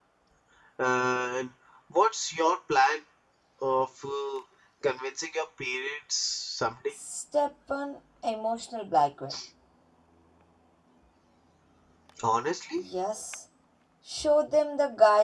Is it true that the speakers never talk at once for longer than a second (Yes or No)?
Yes